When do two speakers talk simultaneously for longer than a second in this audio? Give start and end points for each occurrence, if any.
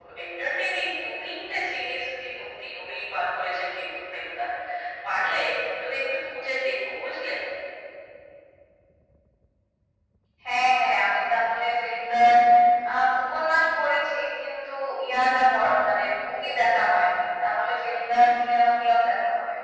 none

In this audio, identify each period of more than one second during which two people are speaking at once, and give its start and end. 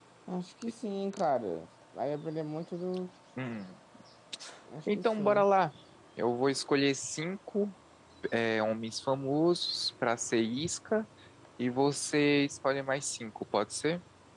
none

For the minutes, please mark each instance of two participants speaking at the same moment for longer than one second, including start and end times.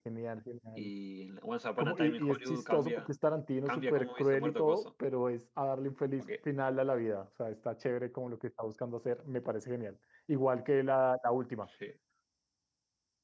1.8-3.1, 3.7-4.9

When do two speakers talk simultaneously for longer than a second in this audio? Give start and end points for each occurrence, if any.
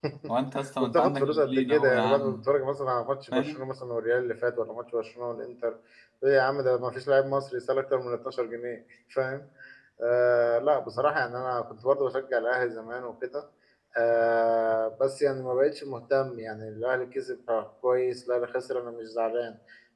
0.8-2.4

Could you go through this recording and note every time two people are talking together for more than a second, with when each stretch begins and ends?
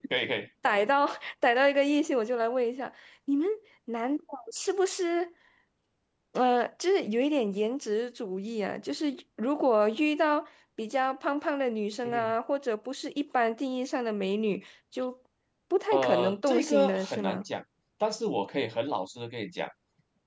15.9-17.4

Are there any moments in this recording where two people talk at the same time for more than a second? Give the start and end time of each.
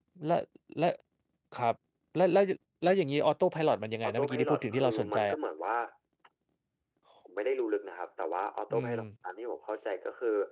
4.0-5.3

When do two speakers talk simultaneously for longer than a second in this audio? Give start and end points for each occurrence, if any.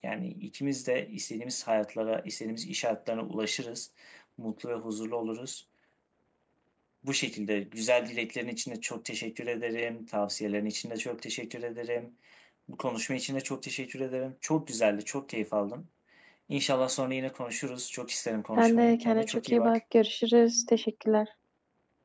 18.6-19.8

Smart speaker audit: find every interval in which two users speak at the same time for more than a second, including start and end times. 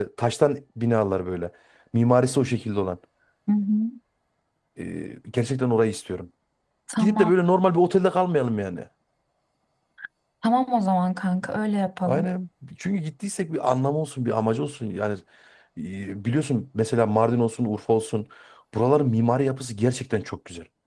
none

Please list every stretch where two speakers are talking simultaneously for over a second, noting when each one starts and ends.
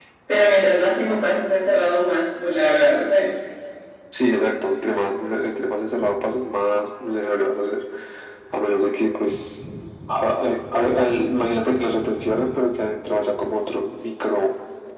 none

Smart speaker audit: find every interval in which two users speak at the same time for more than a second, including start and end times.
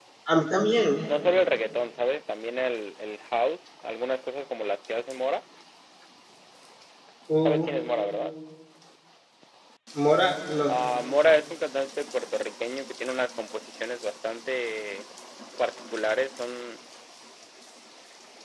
none

